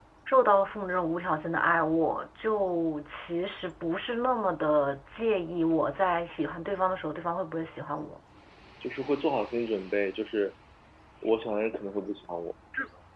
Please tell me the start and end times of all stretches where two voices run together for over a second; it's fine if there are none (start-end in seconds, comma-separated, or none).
none